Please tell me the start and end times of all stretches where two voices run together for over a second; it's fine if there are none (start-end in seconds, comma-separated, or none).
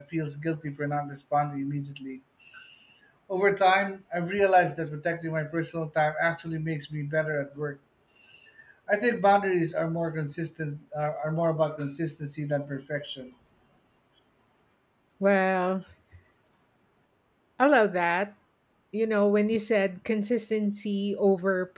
none